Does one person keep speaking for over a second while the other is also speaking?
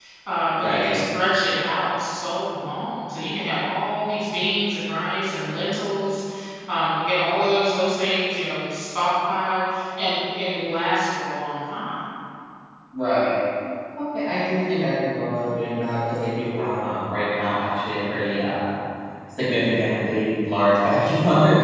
No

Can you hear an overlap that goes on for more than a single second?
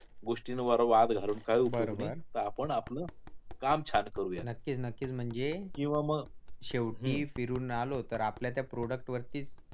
No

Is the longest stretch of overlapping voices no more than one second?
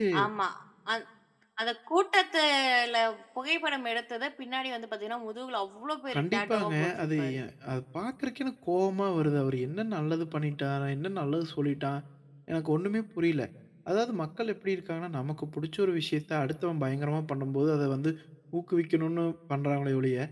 No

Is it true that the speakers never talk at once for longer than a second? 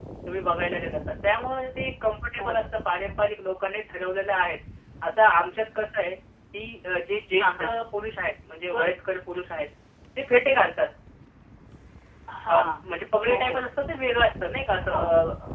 Yes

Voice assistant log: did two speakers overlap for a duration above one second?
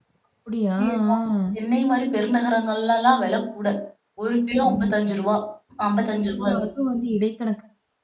No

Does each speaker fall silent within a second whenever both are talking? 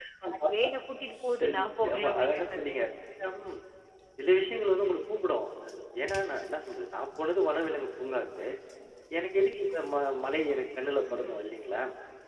No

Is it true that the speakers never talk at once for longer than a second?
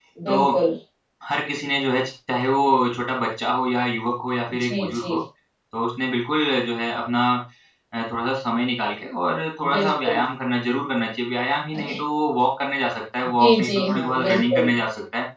No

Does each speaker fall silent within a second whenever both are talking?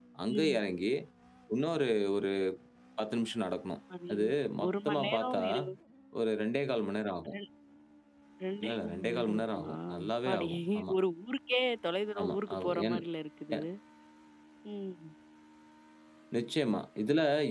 No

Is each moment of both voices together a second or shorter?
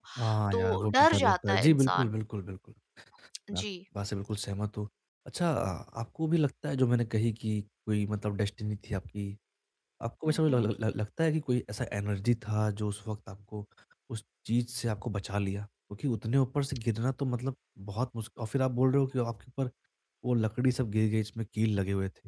No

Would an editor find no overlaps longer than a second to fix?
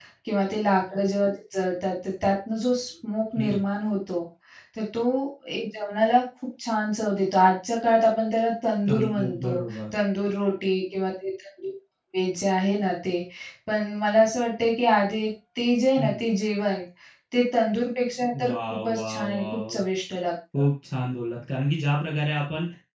No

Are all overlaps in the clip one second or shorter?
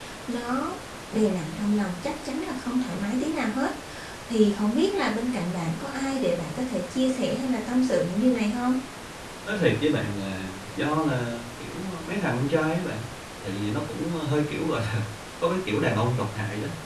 Yes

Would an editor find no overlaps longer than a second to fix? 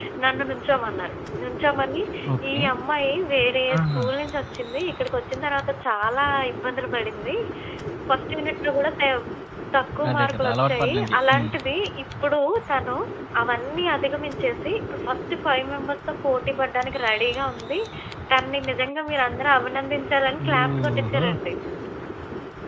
No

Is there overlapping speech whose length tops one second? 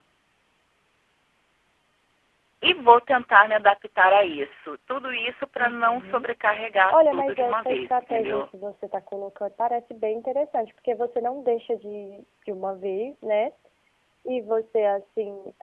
Yes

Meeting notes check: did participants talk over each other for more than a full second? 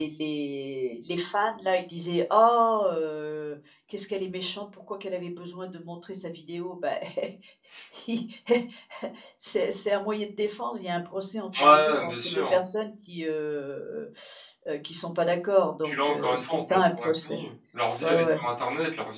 Yes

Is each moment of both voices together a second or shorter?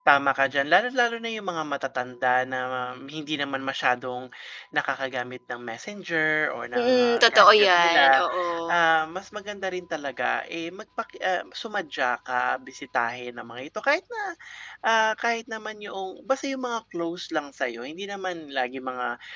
No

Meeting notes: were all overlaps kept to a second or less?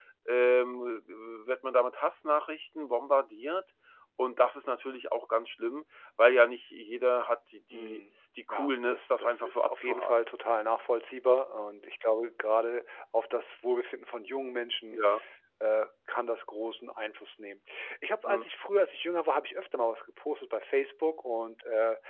No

